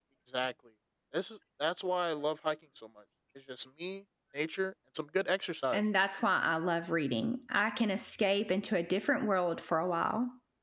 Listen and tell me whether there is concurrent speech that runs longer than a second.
No

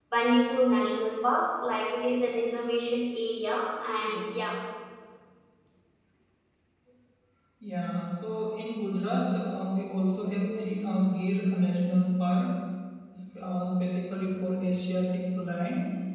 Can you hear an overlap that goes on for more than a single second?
No

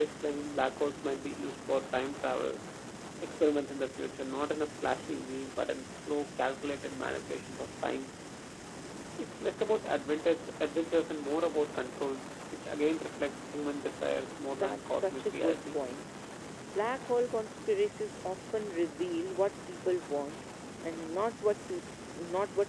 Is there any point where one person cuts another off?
Yes, from 14.5 s

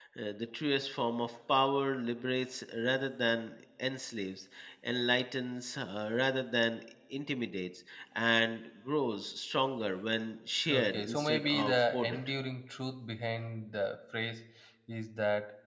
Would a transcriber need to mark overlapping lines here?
Yes, from 10.7 s

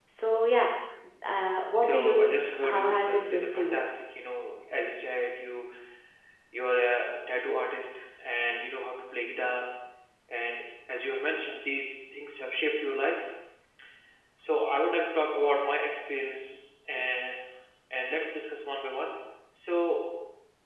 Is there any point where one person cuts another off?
Yes, from 1.8 s

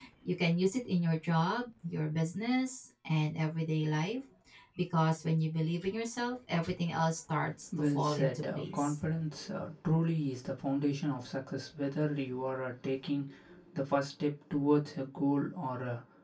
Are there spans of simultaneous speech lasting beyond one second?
Yes, from 7.7 s

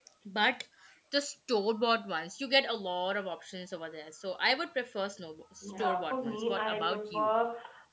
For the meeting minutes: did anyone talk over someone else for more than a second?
Yes, from 5.6 s

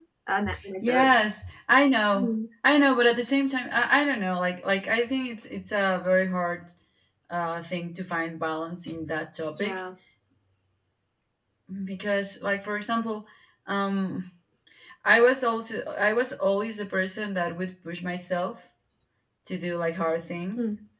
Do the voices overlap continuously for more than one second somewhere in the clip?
No

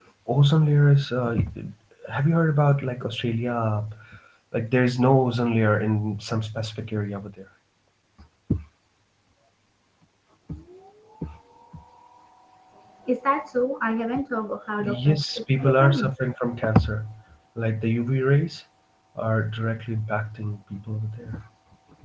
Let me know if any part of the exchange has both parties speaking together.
Yes, from 14.8 s

